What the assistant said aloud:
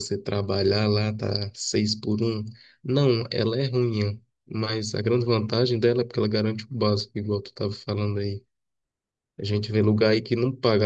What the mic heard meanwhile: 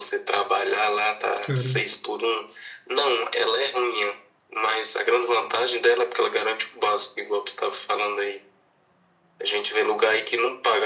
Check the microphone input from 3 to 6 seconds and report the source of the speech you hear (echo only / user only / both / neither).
echo only